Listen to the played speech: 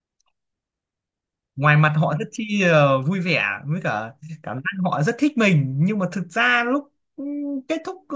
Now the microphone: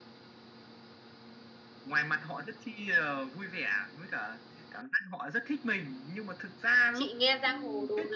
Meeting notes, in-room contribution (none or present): present